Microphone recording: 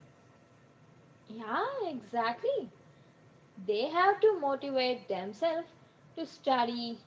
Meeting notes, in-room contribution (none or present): present